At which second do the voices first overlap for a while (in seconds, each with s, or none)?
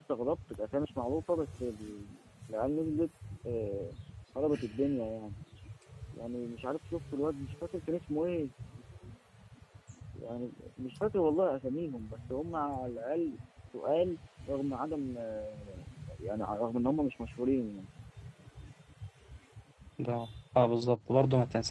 none